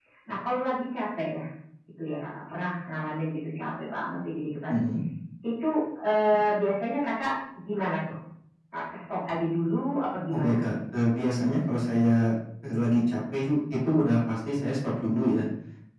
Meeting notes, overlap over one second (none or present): none